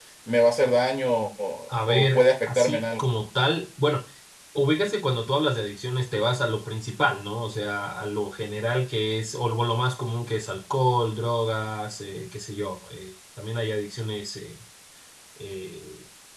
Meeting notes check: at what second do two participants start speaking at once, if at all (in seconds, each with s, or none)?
1.7 s